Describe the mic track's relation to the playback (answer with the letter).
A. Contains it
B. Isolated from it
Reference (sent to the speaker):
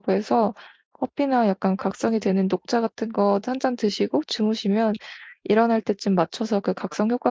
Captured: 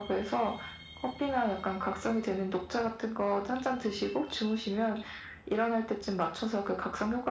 A